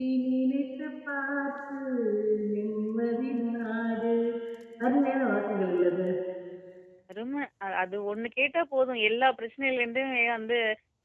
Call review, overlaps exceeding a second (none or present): none